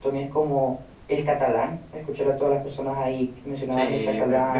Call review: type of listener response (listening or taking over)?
taking over